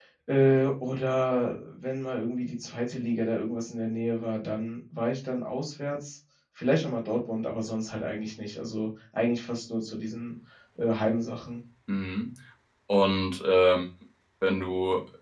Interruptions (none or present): none